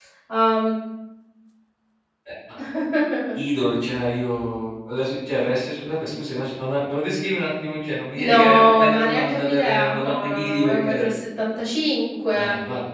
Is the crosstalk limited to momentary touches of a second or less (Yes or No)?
No